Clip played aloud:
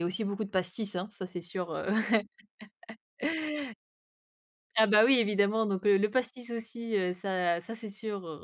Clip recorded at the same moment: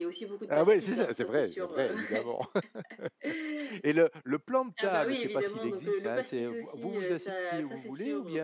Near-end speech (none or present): present